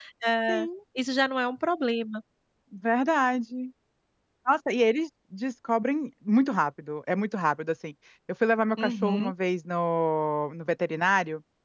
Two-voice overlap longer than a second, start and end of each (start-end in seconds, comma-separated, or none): none